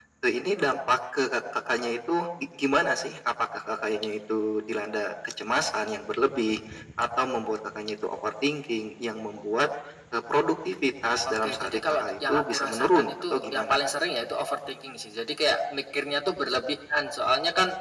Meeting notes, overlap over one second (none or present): present